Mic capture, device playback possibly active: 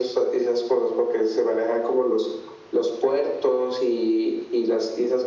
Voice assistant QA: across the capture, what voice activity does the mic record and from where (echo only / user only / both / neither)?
echo only